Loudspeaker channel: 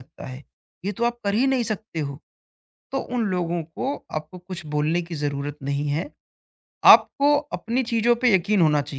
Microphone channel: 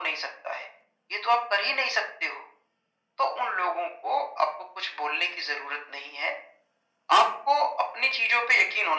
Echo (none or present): present